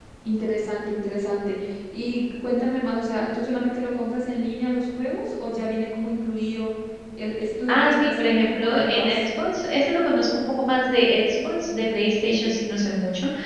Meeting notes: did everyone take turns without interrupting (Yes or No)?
No